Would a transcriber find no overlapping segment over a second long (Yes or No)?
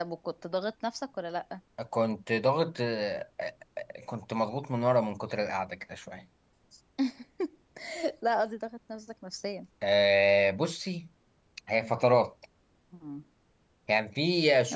Yes